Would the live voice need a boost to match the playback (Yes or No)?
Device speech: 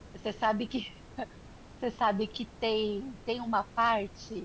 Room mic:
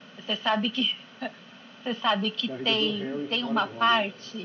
Yes